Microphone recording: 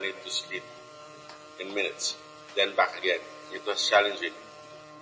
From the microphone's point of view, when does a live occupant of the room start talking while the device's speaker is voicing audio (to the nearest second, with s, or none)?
none